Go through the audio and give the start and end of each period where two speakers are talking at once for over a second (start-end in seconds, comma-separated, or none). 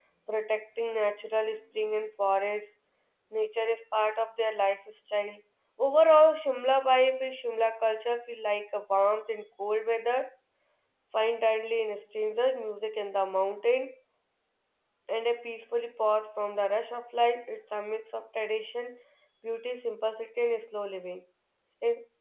none